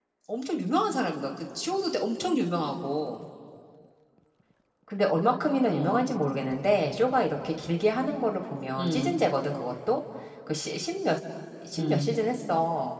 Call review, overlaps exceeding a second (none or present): none